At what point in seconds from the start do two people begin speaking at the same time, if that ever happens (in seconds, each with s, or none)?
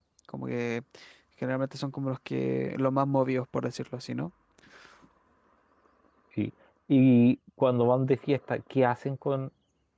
none